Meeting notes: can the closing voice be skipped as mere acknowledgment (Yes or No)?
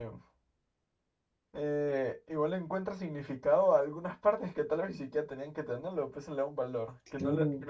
Yes